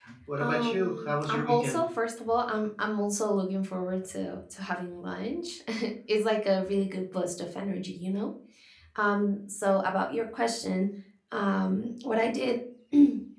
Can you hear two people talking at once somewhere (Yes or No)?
Yes